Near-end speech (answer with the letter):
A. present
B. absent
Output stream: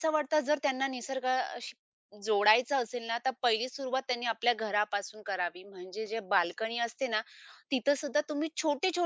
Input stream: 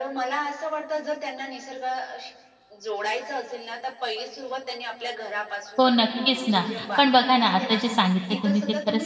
A